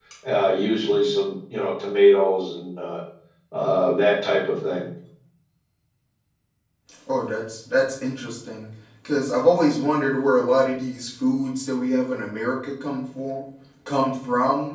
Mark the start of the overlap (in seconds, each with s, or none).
none